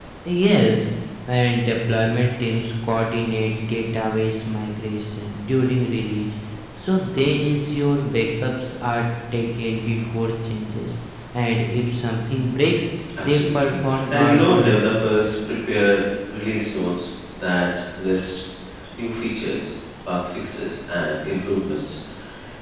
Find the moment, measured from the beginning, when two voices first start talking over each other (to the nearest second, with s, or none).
13 s